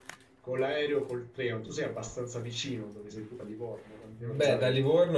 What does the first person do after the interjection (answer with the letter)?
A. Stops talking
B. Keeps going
A